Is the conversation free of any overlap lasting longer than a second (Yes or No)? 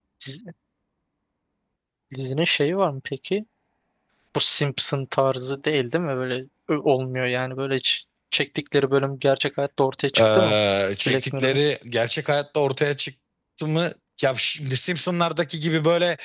Yes